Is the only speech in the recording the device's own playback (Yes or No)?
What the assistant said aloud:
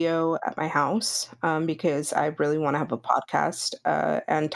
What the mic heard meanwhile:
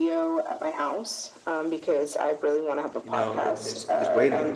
No